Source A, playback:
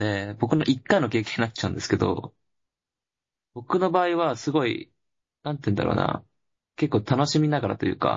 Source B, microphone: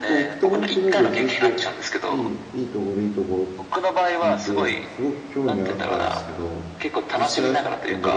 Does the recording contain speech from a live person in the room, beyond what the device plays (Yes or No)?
Yes